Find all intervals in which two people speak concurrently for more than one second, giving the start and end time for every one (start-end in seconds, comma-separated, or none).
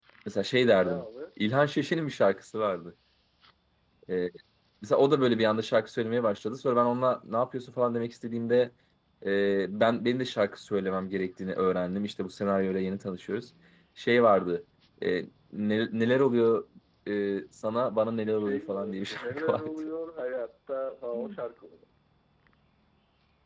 18.4-19.7